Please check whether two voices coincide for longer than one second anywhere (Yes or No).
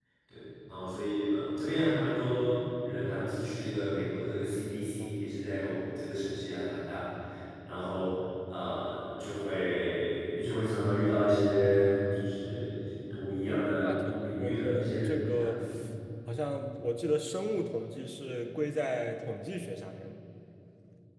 Yes